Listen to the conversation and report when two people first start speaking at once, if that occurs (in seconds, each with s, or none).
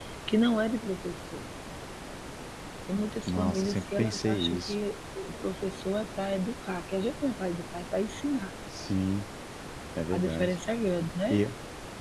3.3 s